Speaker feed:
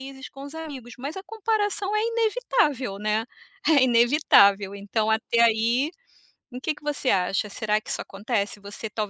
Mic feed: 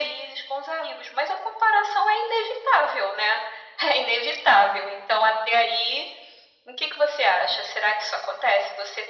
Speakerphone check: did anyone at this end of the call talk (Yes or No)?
No